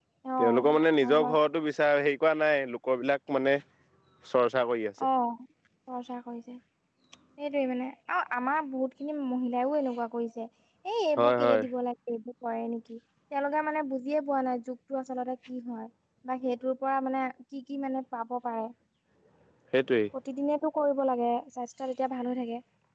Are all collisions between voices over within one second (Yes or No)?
Yes